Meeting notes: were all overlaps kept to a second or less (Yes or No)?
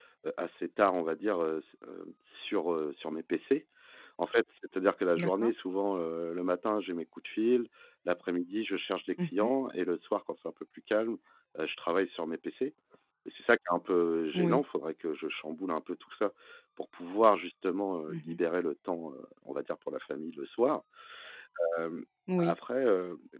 Yes